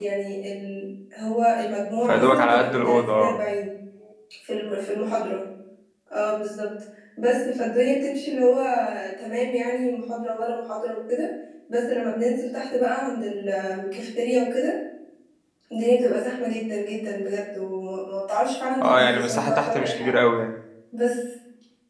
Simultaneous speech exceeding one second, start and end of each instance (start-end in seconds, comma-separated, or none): 2.1-3.4, 18.8-20.2